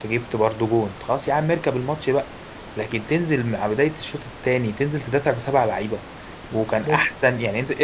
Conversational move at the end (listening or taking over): listening